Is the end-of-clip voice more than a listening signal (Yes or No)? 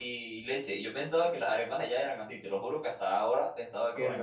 Yes